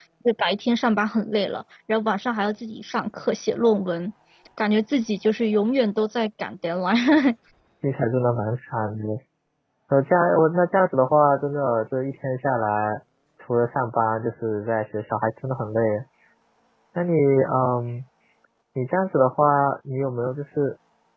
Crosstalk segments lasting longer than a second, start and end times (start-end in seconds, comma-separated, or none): none